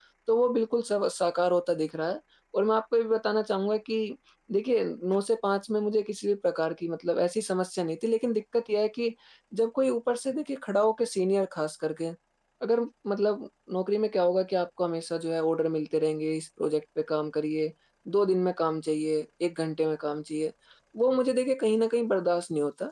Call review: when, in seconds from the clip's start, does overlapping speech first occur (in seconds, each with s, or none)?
none